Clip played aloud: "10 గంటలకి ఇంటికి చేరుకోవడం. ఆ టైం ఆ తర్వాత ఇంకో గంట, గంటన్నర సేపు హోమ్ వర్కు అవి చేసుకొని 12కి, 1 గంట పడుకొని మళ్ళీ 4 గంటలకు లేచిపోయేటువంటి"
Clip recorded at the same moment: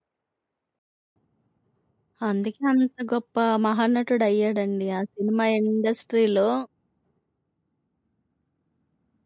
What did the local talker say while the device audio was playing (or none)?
అందుకే అంత గొప్ప మహానటుడయ్యాడండి. ఆ సినిమా ఇండస్ట్రీలో